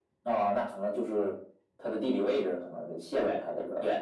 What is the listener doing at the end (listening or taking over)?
taking over